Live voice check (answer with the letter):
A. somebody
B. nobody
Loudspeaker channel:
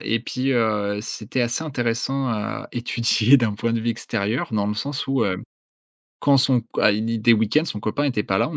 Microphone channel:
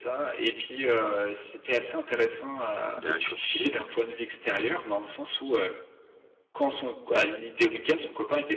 A